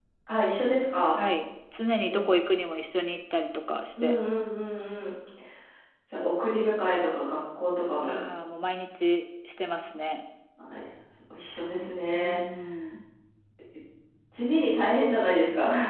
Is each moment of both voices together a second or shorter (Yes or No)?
Yes